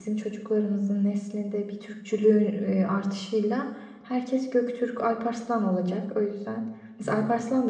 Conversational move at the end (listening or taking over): listening